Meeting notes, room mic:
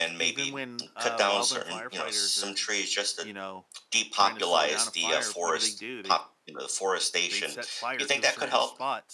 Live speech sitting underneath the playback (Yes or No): Yes